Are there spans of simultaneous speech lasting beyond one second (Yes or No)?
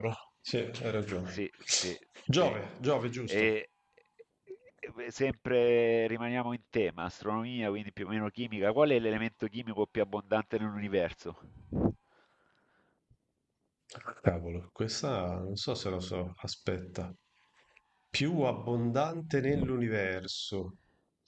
No